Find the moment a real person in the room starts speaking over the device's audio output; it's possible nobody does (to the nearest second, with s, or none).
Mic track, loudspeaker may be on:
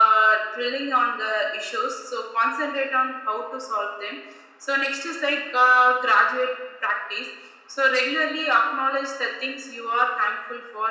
none